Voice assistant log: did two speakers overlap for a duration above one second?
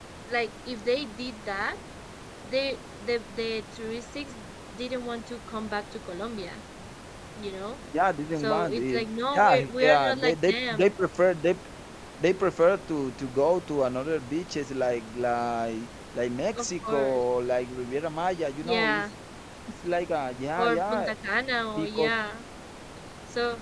Yes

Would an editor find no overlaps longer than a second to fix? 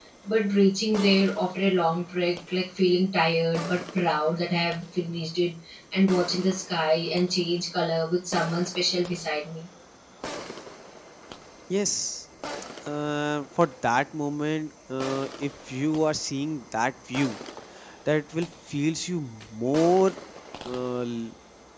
Yes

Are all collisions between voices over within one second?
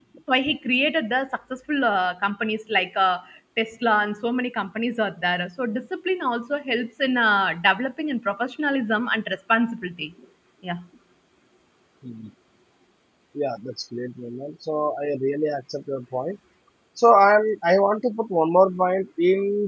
Yes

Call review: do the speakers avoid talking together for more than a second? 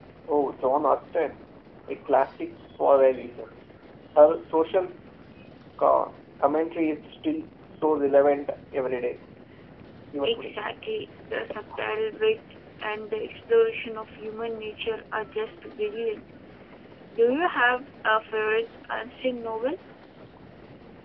Yes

